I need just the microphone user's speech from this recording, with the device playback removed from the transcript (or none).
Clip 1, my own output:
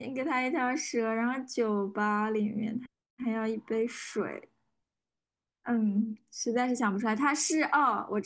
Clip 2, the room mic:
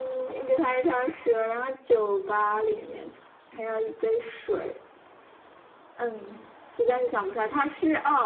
none